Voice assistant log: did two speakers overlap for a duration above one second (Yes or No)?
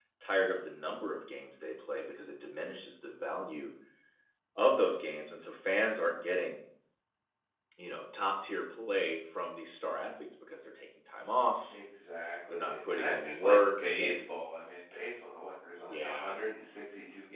Yes